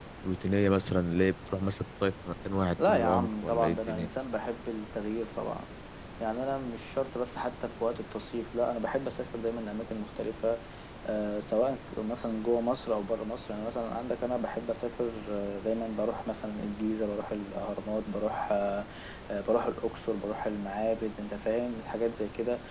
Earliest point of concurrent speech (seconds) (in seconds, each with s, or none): 2.8 s